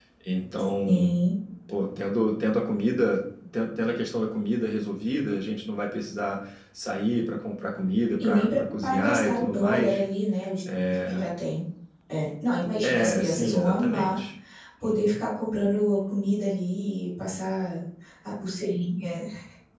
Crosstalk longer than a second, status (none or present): present